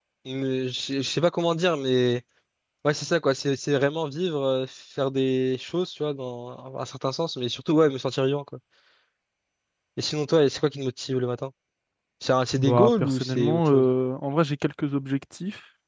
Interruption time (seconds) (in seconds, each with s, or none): 12.6 s